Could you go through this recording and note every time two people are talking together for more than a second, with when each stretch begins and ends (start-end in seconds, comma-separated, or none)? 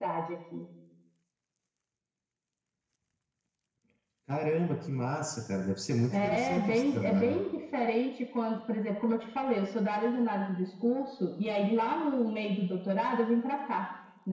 6.1-7.4